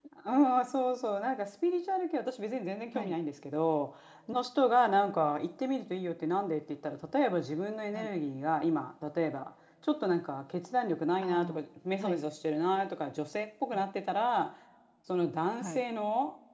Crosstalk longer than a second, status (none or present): none